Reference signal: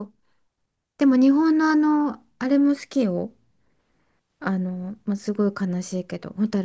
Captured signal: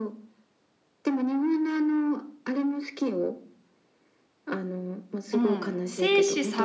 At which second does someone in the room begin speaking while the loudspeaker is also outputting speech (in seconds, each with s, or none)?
5.3 s